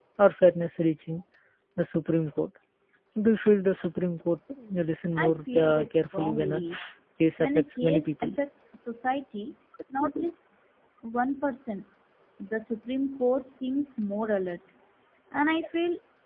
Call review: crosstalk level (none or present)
present